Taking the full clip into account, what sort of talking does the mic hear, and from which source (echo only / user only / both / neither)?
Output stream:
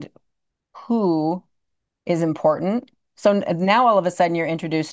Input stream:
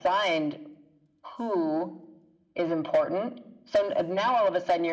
echo only